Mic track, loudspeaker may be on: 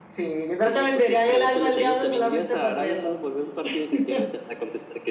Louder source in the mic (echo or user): user